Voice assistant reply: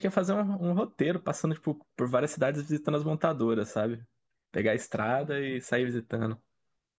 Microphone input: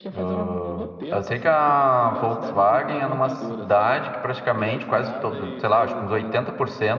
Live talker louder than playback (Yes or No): Yes